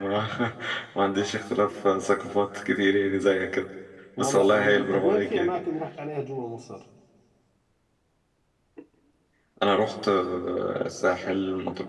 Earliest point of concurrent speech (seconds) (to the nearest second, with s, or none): 4 s